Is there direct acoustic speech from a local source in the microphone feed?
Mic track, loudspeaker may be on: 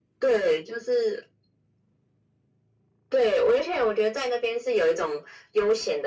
No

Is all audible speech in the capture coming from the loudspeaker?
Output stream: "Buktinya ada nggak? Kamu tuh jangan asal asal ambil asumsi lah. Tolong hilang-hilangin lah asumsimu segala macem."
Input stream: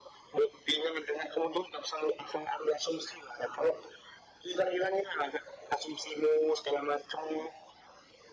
Yes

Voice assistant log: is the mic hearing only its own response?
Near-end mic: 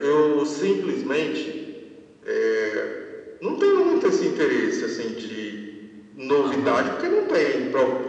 No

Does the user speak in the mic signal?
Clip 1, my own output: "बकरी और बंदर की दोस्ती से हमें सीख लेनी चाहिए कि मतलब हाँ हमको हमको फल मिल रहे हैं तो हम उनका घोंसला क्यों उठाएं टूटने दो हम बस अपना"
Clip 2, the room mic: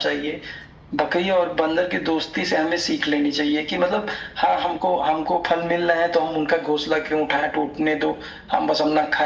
No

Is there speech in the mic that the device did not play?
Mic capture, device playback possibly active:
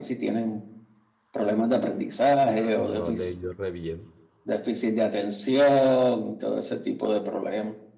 Yes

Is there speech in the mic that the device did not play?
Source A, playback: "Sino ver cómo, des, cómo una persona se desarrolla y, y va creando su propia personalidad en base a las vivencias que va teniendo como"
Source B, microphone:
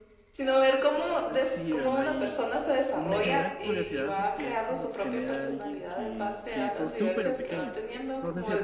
Yes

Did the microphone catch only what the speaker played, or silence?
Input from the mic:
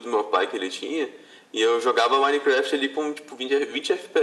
Yes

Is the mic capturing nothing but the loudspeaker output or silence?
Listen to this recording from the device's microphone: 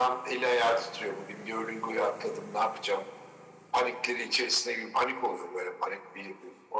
Yes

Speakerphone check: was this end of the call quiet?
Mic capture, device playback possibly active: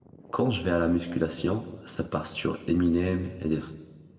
No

